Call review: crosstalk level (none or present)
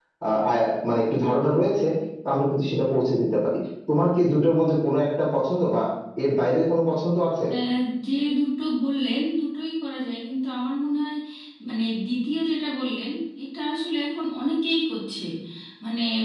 none